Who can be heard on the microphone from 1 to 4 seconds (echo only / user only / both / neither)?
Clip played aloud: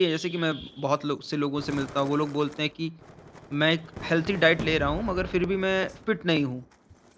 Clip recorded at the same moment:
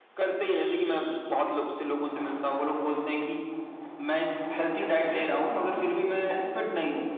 echo only